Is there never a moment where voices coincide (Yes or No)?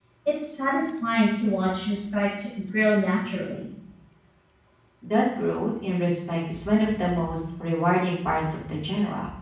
Yes